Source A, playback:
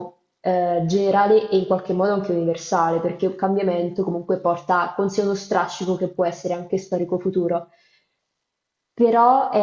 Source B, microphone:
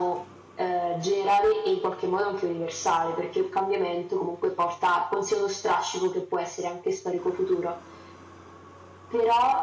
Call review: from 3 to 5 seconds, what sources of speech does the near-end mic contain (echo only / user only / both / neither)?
echo only